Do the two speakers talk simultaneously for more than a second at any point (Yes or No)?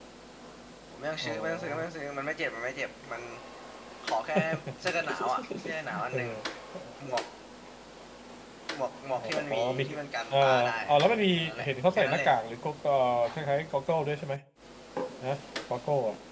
Yes